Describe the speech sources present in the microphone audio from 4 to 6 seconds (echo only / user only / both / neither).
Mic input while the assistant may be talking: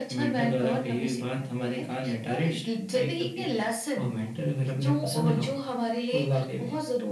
echo only